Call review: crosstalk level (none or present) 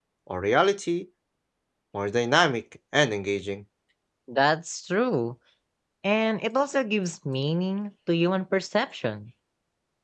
none